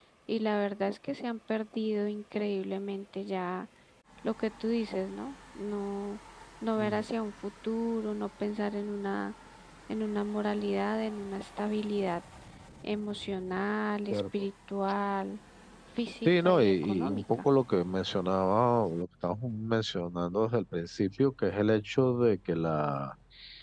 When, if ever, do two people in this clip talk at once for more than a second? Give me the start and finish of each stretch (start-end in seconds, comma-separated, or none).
16.2-17.4